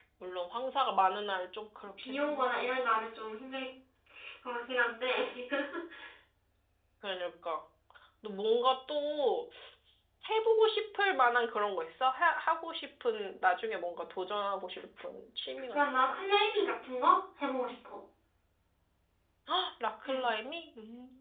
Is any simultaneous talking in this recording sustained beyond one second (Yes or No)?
No